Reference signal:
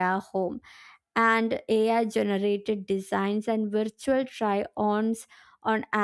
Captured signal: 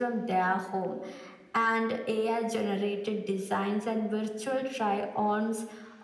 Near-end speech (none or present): none